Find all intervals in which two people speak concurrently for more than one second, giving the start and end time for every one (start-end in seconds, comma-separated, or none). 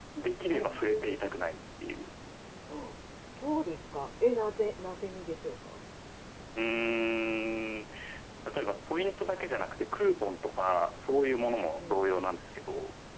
none